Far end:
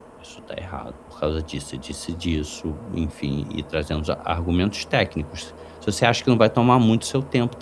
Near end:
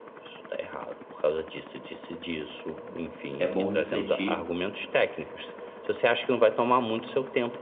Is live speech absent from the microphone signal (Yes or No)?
No